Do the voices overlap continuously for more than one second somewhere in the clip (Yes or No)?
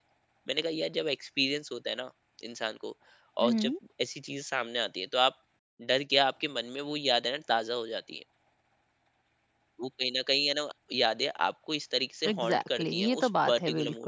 Yes